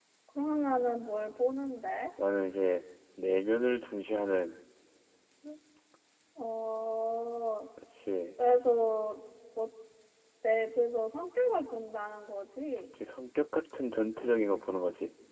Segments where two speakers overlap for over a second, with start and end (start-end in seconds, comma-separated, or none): none